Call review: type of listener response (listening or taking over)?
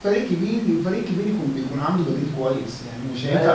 taking over